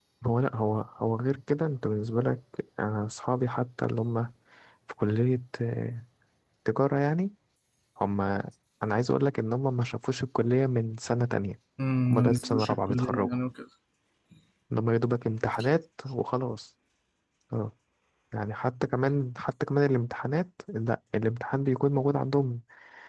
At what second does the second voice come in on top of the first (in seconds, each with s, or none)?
12.1 s